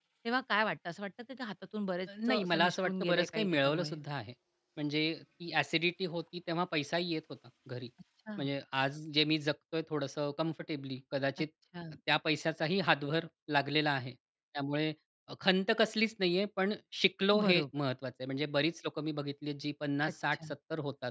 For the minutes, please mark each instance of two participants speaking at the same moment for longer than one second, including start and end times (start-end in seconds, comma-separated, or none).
2.1-4.0